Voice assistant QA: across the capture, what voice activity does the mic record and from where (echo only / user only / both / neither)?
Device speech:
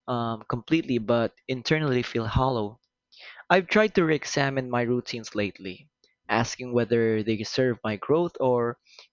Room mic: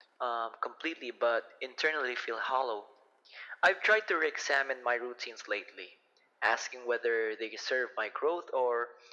echo only